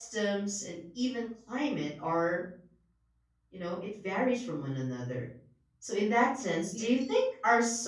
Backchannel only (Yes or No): Yes